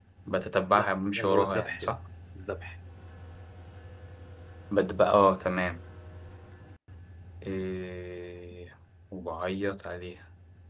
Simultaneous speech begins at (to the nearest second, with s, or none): 1 s